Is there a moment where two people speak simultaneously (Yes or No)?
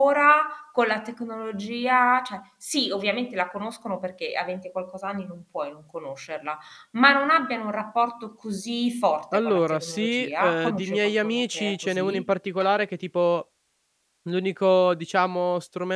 Yes